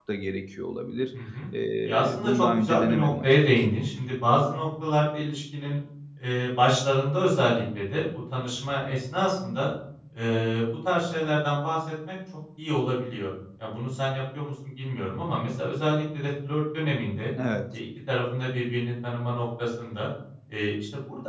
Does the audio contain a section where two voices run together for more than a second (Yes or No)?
Yes